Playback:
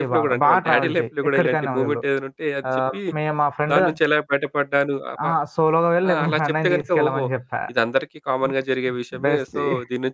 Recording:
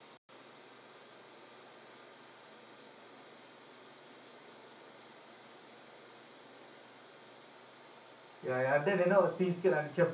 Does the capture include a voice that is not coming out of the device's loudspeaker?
Yes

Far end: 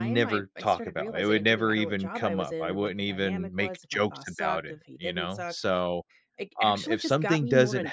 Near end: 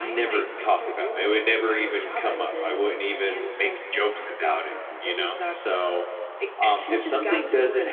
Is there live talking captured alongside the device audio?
No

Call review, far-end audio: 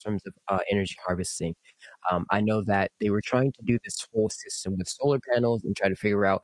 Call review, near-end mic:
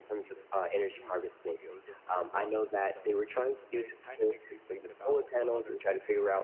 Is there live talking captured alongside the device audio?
Yes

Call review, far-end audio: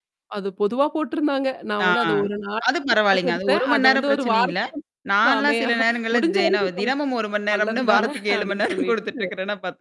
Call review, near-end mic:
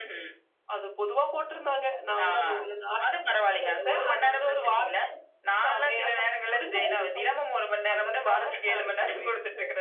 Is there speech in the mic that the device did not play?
No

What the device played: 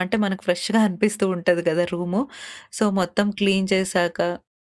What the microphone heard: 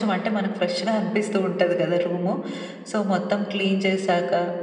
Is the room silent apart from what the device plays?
Yes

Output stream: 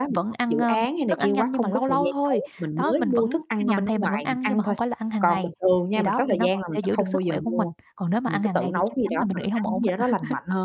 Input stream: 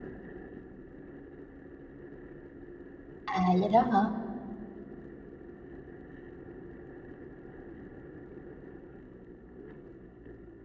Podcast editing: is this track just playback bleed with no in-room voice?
No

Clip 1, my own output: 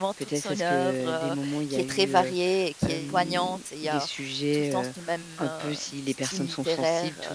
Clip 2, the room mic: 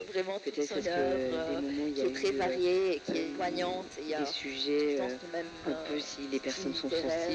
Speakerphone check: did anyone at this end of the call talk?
No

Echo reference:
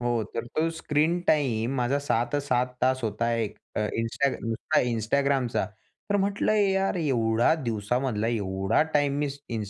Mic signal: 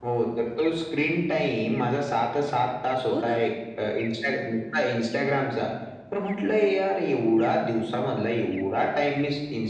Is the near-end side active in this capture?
Yes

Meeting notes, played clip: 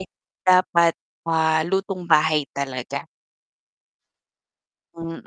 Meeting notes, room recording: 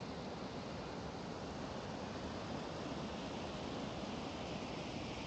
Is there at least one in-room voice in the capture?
No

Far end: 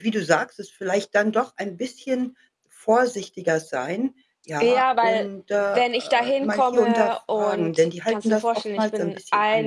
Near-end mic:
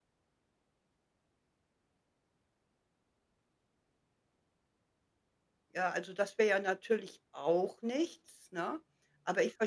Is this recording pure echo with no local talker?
No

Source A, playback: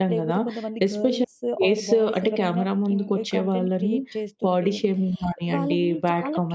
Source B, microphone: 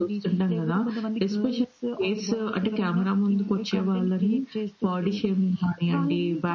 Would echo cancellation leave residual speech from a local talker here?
No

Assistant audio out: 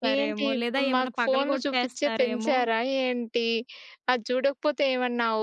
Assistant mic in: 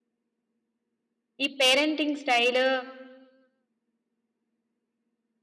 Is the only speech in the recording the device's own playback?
No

